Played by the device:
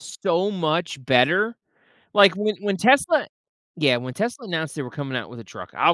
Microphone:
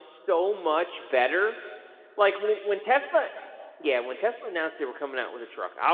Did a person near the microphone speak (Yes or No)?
No